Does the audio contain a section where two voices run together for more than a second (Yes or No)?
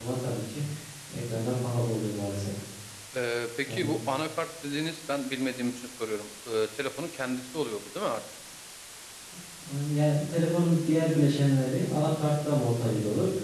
No